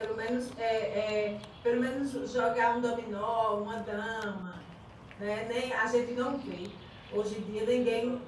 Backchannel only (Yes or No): Yes